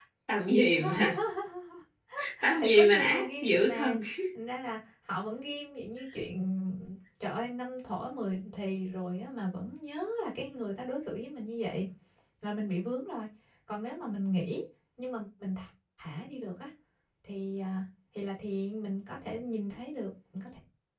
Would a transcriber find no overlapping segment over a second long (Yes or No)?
No